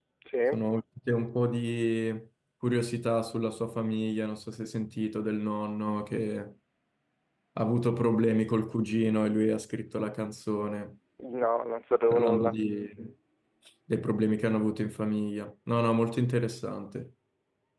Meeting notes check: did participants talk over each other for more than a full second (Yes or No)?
No